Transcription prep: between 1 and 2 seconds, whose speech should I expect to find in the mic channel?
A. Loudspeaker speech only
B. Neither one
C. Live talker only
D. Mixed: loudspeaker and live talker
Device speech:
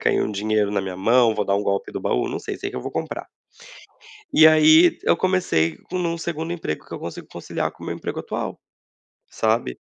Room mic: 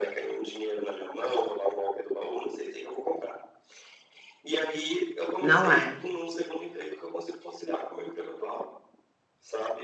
A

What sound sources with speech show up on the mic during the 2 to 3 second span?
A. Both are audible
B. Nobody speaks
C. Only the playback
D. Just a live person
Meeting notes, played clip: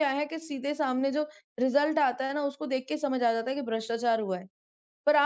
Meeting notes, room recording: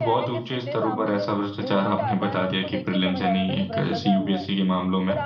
A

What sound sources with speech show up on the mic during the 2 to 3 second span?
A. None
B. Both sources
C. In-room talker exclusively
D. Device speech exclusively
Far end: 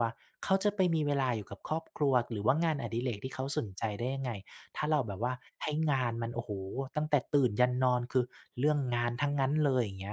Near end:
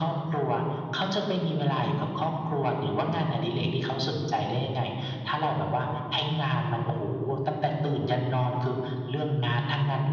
D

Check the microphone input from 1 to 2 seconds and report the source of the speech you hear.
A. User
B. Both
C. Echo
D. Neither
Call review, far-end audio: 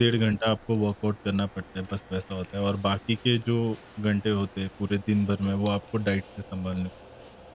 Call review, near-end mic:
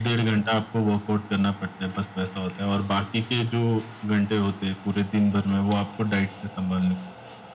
C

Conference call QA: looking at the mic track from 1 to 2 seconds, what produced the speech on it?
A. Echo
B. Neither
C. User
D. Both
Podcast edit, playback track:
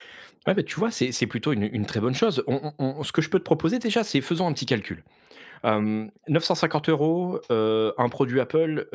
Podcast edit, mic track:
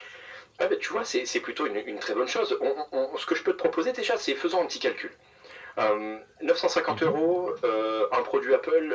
A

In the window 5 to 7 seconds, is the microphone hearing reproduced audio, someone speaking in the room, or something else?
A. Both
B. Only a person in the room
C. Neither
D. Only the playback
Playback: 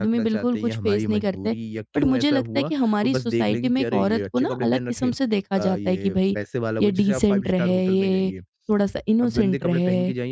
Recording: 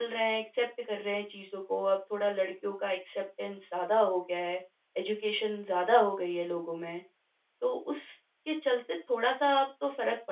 B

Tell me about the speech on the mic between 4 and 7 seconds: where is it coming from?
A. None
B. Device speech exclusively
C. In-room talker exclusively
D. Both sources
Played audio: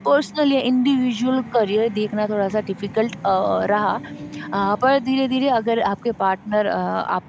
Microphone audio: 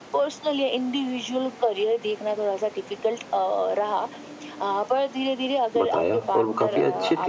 D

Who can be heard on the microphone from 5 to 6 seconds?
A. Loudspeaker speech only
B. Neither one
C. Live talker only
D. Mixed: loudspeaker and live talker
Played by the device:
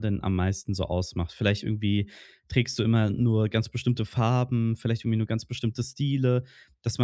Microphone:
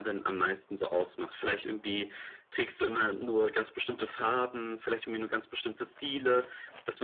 A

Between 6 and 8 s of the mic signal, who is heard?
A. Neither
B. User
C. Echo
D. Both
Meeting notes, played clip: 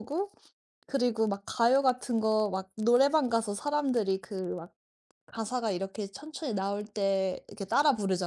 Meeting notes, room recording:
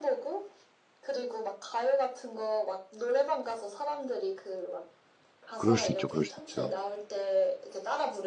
D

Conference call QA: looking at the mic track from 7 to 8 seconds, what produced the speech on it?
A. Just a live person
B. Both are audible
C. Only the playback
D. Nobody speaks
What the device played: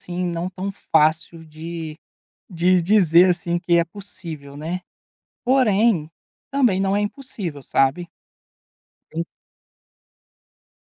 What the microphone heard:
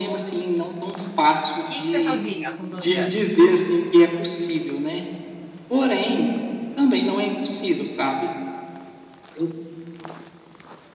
C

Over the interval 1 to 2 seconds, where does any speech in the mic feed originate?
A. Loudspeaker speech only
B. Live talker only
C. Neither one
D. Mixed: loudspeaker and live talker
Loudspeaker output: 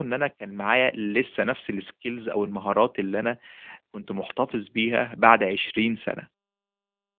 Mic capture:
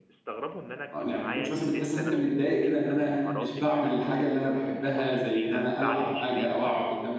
D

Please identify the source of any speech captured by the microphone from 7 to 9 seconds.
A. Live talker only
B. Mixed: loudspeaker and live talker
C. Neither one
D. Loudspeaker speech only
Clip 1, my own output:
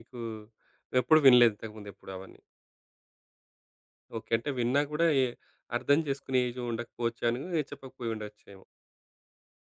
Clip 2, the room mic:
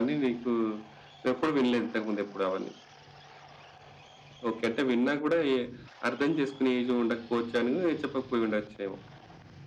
D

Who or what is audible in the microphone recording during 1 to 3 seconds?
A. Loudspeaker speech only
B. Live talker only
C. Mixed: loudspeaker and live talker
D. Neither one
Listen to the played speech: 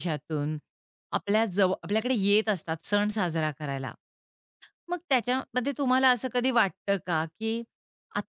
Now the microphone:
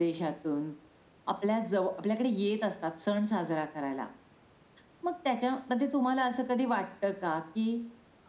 A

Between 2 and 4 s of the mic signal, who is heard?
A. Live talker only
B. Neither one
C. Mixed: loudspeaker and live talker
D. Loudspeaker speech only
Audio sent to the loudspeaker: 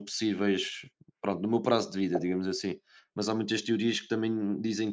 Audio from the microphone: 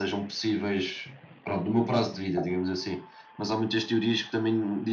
D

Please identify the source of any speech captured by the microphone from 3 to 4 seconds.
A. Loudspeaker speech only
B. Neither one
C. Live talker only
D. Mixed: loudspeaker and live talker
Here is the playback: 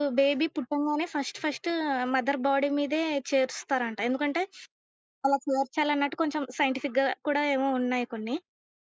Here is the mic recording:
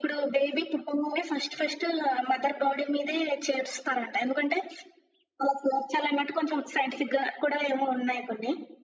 A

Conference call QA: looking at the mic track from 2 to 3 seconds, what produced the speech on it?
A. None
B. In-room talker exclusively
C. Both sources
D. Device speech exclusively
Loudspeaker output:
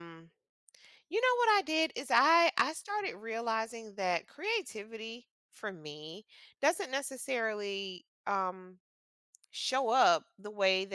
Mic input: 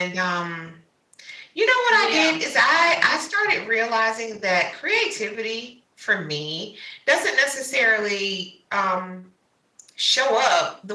C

